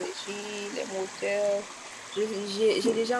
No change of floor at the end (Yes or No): Yes